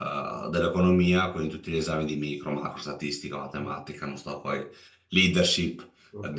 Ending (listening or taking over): taking over